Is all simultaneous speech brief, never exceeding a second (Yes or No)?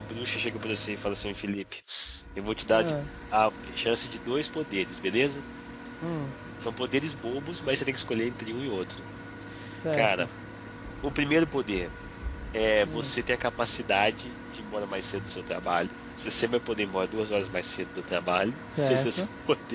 Yes